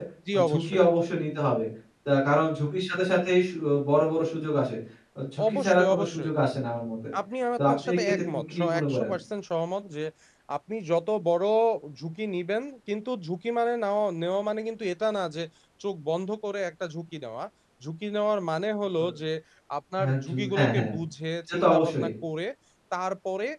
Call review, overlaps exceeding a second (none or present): present